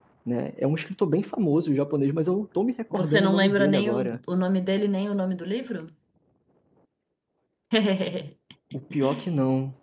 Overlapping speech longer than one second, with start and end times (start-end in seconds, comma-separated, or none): 2.9-4.2